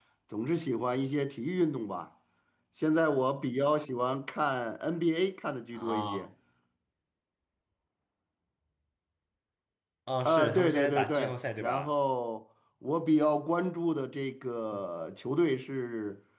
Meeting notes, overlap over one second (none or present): present